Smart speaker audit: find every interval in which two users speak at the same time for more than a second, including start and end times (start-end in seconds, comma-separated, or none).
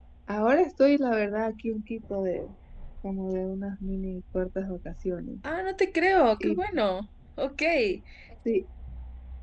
none